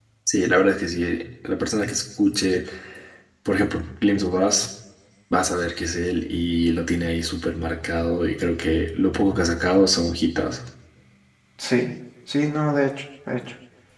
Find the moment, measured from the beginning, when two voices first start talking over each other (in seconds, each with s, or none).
none